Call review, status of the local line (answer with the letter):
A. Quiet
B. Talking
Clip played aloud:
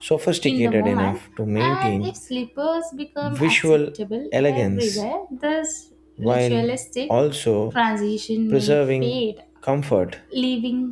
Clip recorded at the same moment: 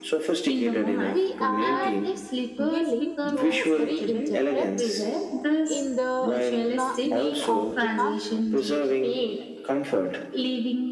B